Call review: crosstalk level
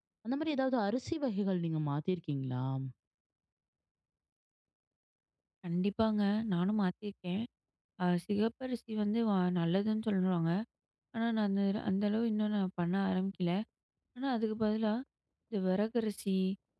none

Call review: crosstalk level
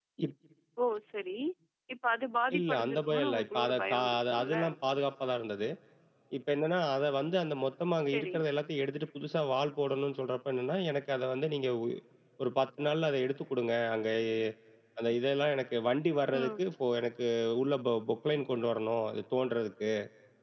present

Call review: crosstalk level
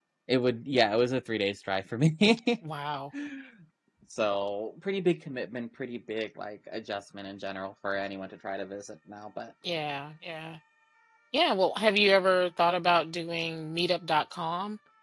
none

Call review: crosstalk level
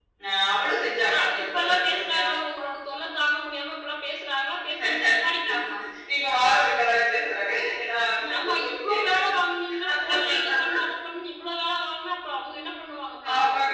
present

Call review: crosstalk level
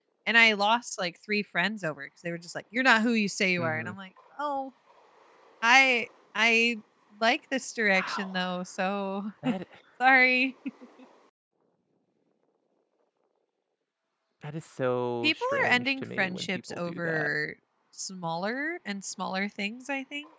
present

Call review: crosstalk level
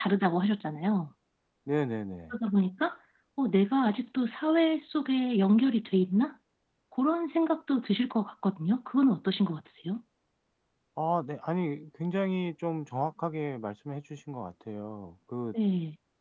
none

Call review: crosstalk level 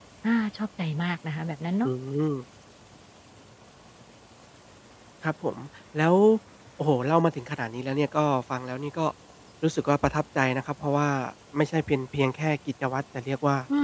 none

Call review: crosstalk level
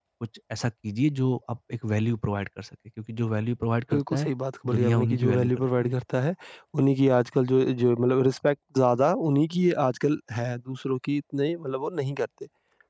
present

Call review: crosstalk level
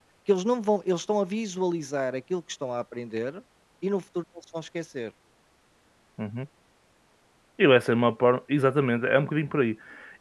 none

